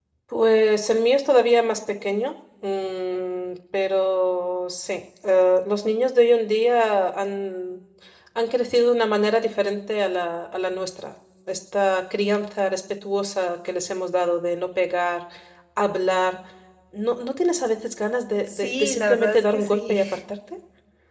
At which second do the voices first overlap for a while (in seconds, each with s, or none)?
18.5 s